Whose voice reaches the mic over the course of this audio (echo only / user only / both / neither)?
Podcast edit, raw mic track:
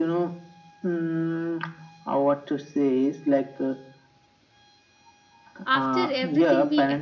both